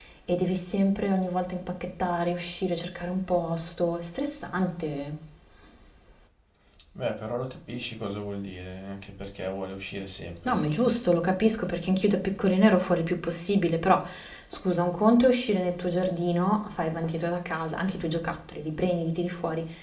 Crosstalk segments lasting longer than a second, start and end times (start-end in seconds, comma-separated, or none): none